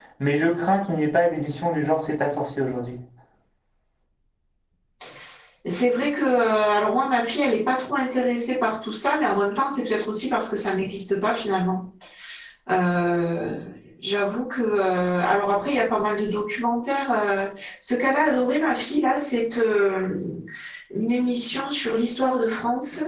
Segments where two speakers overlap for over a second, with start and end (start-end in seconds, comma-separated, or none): none